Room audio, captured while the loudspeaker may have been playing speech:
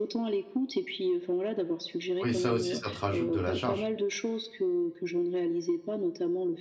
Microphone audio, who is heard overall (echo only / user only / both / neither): both